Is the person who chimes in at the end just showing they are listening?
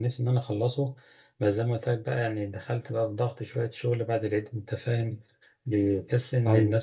Yes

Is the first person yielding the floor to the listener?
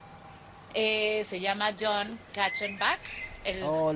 Yes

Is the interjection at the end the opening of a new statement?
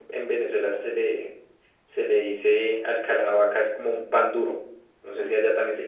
No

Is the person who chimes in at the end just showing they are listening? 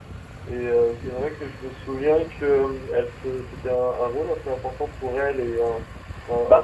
No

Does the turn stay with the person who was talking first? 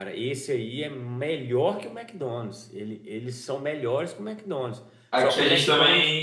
No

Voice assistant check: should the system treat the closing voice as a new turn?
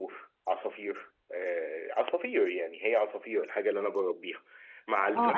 Yes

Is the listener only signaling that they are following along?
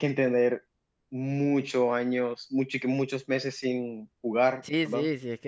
No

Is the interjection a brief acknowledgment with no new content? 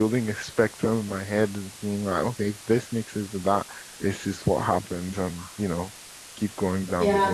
No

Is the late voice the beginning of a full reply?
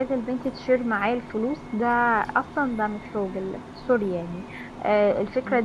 No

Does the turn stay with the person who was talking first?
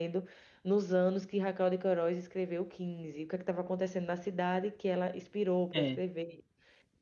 Yes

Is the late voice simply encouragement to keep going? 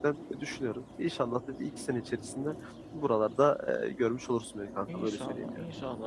No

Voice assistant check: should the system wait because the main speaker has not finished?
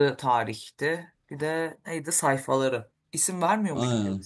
No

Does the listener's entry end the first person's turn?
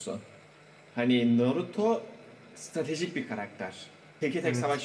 No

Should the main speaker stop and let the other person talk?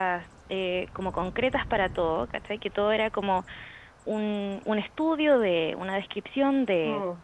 No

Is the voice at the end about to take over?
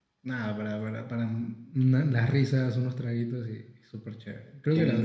Yes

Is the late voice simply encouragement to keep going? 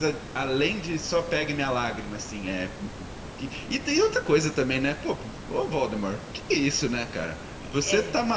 Yes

